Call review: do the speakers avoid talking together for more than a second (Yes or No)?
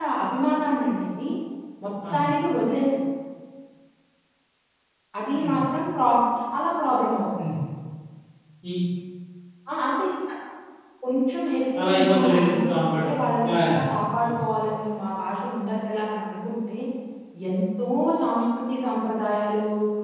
No